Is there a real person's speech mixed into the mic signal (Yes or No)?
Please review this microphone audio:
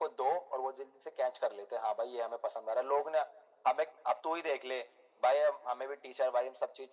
No